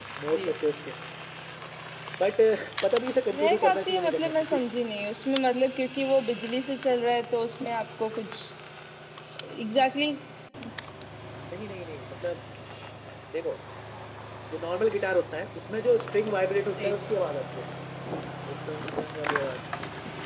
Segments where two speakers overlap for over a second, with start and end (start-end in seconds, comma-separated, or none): 3.3-4.6